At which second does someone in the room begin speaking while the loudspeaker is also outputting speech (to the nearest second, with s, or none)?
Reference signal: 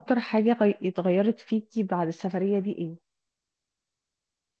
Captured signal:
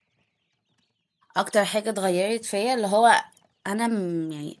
1 s